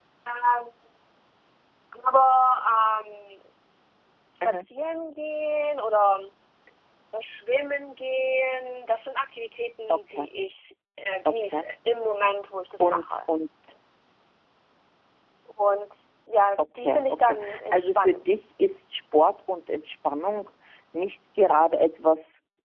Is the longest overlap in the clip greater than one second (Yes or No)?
Yes